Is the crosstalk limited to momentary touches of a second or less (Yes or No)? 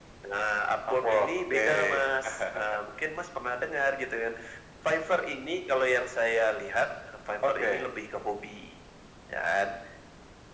No